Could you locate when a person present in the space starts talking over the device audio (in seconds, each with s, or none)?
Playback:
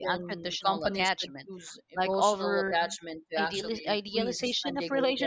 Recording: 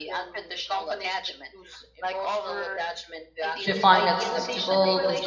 3.6 s